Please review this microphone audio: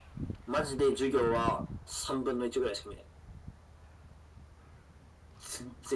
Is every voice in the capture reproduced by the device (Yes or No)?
Yes